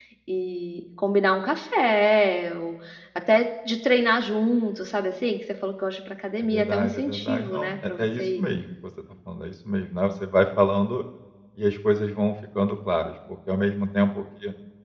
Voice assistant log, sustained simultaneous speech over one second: present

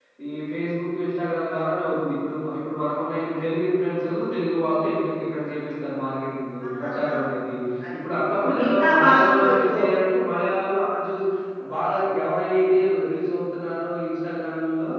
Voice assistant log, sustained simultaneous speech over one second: present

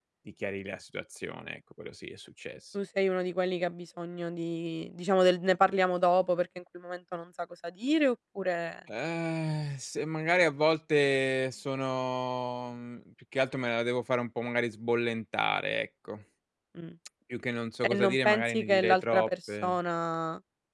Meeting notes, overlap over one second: present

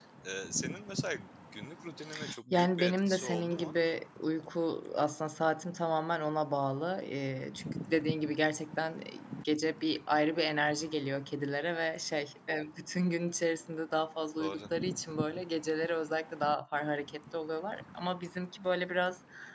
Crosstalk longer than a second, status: present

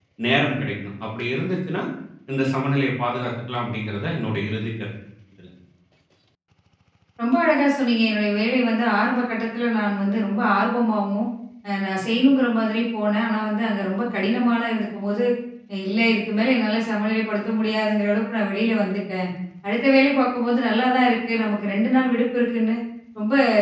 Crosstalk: none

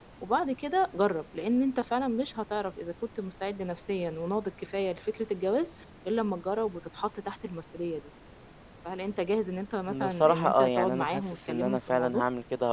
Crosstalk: present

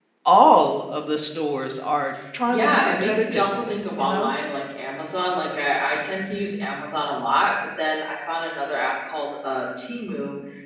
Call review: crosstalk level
present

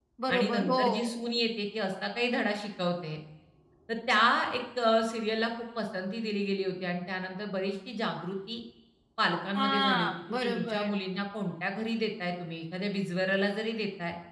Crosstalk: present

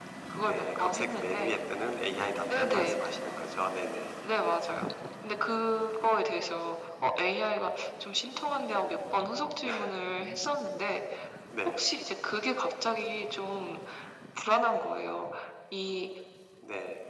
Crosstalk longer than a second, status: present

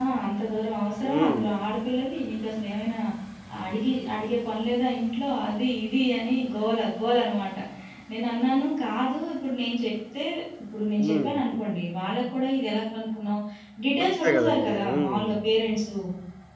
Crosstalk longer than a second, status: present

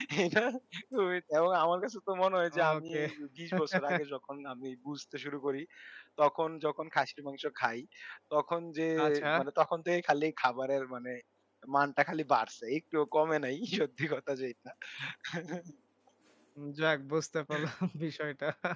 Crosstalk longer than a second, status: none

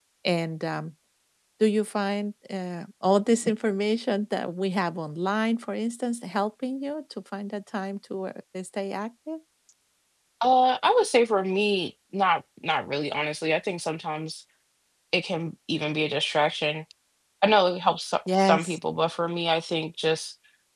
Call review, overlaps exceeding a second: none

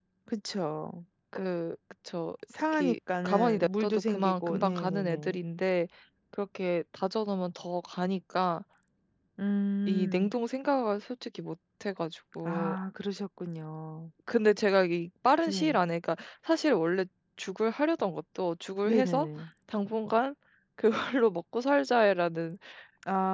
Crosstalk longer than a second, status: present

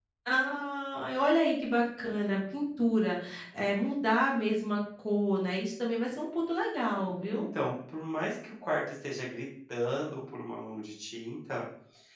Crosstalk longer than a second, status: none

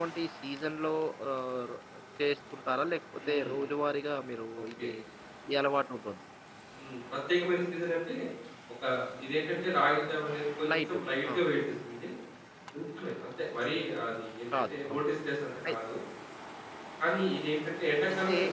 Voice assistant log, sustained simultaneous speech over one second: none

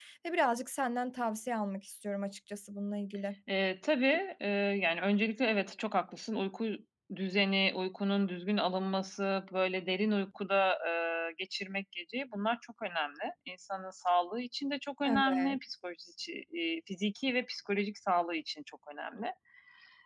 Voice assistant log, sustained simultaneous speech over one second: none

